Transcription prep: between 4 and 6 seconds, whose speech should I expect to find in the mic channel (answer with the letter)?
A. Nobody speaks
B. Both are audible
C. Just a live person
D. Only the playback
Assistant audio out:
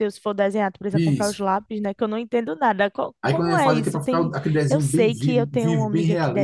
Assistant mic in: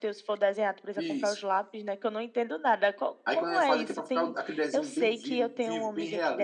D